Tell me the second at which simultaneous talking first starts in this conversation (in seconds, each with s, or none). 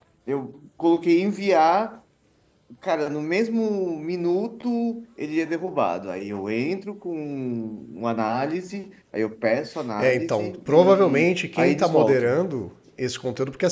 10.0 s